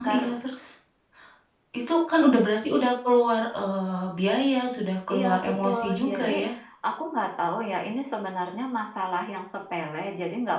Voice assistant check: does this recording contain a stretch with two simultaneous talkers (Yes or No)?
Yes